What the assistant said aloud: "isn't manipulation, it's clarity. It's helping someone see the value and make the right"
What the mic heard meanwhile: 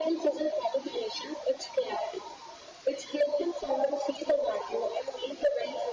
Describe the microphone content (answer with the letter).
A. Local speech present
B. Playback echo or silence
B